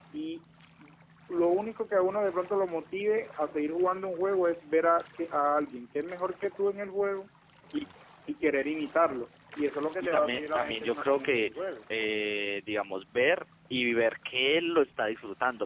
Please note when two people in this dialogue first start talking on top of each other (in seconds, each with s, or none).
10.0 s